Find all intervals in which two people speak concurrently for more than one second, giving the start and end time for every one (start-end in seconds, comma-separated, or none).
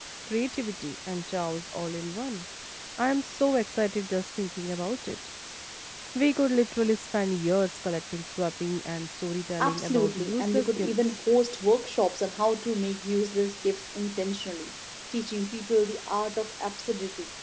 9.6-11.2